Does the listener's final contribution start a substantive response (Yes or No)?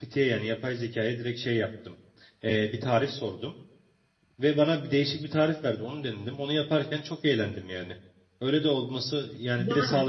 Yes